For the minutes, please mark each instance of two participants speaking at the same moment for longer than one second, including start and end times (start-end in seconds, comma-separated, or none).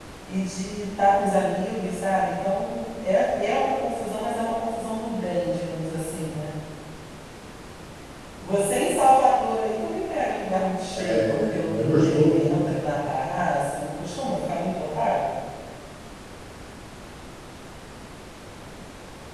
10.9-12.7